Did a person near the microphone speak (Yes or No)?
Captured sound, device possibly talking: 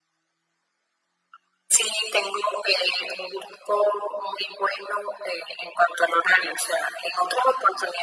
No